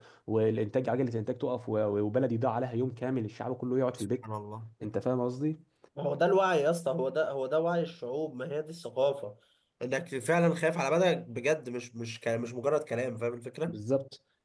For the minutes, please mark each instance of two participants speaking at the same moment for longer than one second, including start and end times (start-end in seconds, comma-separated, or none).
none